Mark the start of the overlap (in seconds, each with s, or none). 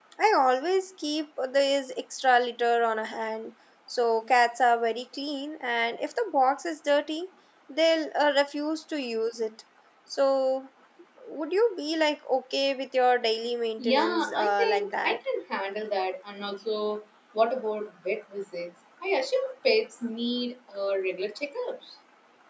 13.8 s